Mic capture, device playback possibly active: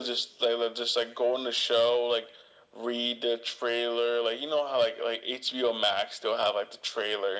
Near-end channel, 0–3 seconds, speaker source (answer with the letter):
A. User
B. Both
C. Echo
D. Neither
C